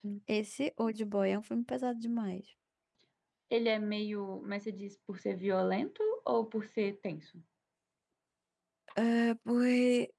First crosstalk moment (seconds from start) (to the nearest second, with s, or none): none